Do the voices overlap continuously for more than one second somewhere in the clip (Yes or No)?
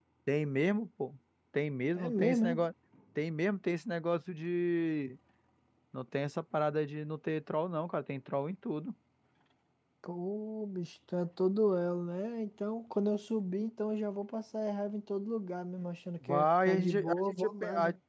Yes